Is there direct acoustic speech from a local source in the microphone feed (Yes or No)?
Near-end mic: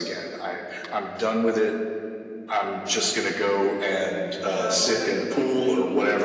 Yes